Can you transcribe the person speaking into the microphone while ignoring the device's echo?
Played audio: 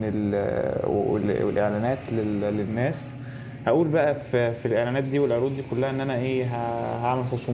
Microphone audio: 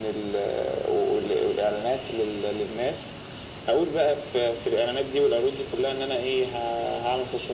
none

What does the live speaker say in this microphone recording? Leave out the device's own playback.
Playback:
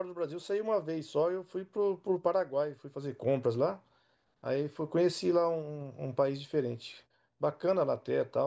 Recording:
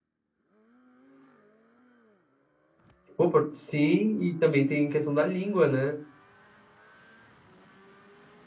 Pô, por- Sim, e também tem questão da língua, né?

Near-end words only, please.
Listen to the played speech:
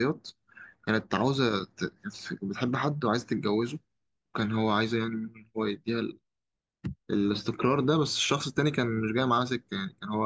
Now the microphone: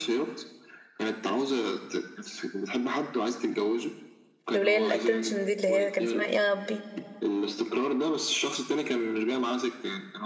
الولاية الاتنشن دي اللي هي كان اسمها إيه يا ربي

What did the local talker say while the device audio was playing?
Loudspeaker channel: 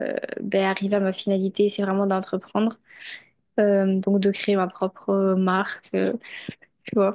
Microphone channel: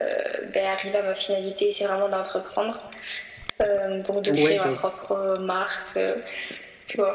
Ouais, j'avoue.

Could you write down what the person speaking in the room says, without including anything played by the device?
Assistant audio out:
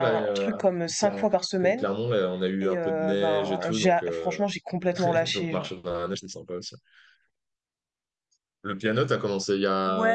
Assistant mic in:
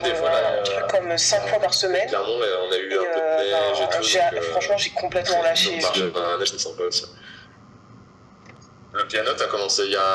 Ah, Parce que

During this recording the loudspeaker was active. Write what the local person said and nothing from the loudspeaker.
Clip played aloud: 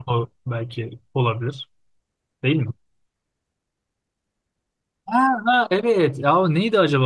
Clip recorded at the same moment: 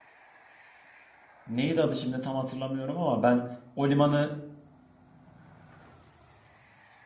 Neydi adı şimdi tam hatırlamıyorum ama ben o limanı

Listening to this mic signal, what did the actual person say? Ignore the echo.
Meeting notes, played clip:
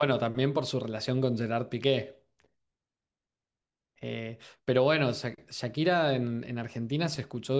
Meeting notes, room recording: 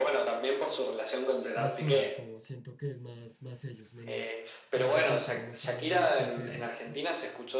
más suave, como siento que es más, más ellos, menos, menos intentar mostrar una fase de rockstar.

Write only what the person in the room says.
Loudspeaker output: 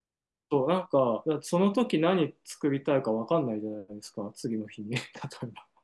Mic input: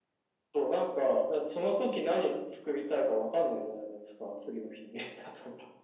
none

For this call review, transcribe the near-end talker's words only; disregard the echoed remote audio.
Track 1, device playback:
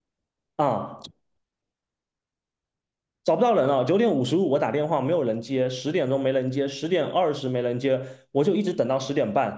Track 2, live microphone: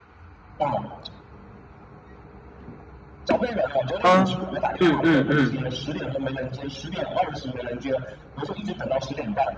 啊！嗯嗯嗯

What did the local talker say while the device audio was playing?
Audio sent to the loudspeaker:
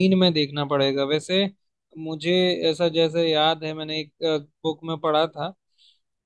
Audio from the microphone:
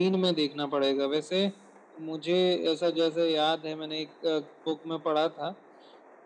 none

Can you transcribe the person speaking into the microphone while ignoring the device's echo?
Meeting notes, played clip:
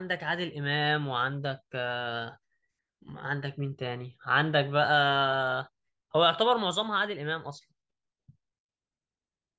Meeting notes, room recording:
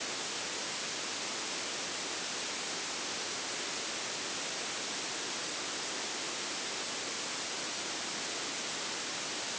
none

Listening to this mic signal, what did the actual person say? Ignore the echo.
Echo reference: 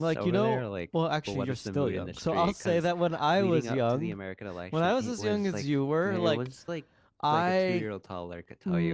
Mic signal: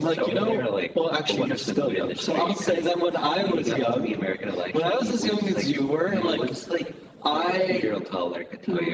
none

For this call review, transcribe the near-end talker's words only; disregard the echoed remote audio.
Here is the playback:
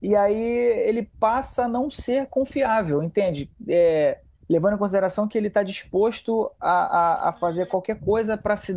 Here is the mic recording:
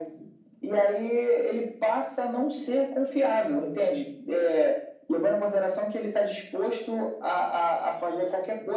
none

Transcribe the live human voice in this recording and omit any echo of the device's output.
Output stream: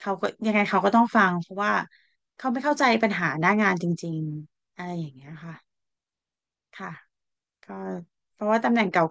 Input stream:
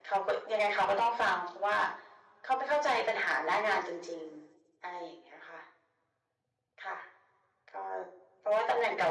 none

